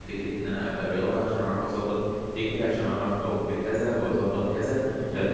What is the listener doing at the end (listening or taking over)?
listening